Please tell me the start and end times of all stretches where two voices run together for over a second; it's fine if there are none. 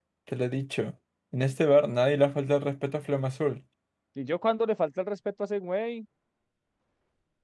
none

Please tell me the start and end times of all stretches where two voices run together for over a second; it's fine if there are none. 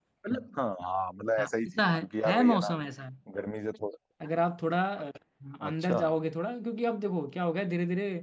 1.4-2.8

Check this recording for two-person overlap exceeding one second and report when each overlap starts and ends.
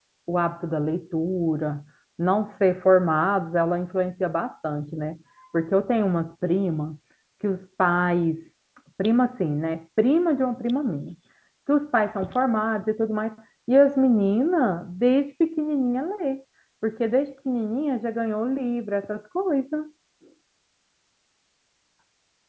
none

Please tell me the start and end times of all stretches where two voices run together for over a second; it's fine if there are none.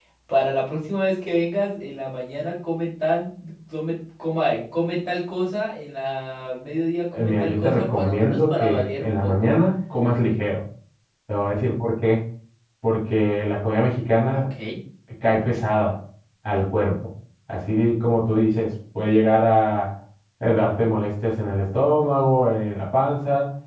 7.1-9.5

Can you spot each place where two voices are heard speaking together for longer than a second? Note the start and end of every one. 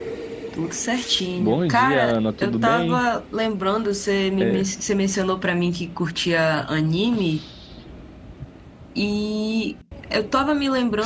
1.4-3.0

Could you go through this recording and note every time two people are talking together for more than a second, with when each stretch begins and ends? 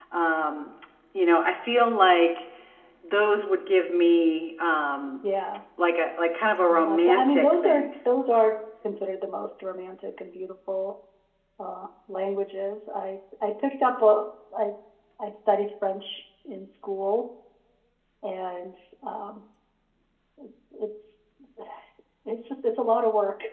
6.7-8.0

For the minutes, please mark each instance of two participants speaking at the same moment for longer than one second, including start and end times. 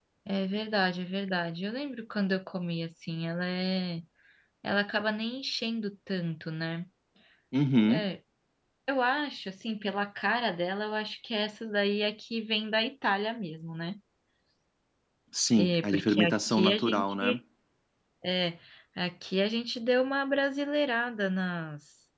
15.6-17.4

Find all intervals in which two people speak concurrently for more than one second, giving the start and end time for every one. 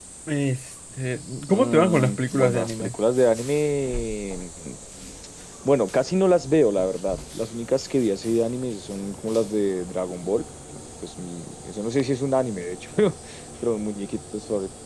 1.5-2.9

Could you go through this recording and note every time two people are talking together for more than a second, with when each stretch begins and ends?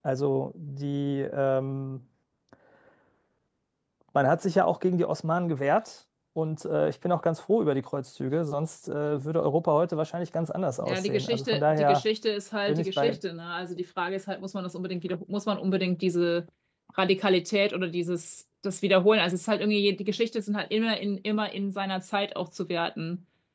10.8-12.0

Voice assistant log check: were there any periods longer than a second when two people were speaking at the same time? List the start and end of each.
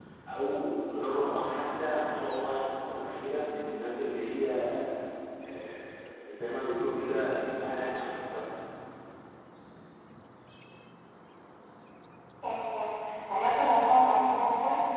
none

